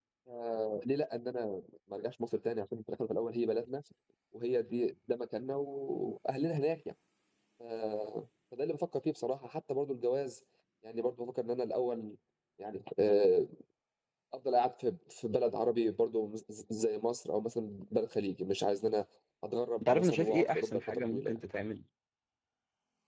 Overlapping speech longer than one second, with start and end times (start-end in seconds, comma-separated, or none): 19.8-21.4